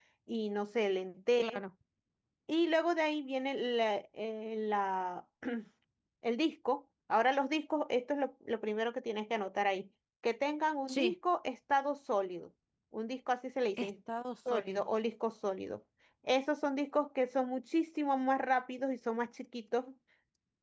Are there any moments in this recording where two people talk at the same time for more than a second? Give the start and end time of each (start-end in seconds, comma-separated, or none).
none